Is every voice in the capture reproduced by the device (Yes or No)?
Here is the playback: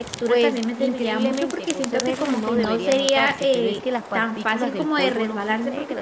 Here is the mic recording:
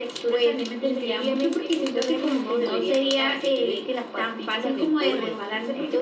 No